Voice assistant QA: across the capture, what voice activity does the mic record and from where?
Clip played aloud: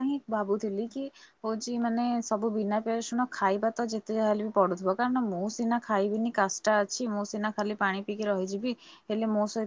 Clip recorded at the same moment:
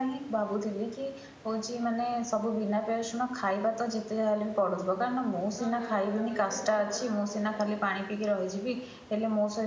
both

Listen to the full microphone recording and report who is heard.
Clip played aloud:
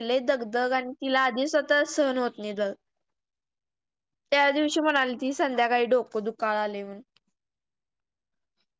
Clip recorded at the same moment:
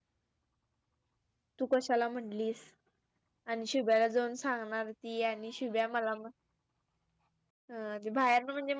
user only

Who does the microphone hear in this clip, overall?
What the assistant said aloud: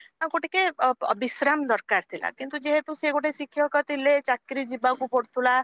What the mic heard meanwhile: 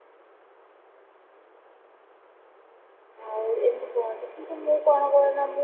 user only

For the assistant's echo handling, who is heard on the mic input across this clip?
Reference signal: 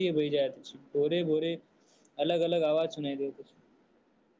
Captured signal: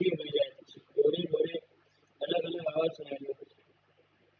echo only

